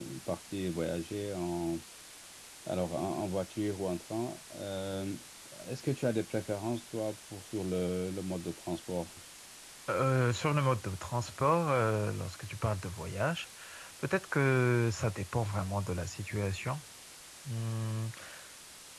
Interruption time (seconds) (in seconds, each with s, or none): none